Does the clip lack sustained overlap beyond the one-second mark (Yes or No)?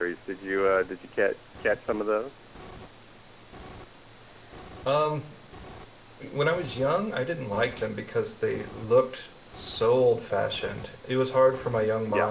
Yes